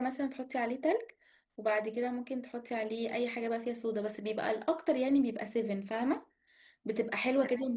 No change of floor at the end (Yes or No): Yes